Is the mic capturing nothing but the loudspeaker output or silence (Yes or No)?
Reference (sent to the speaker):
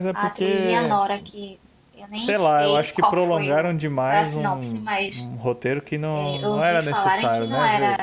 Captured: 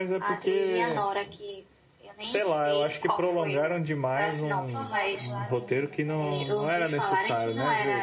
No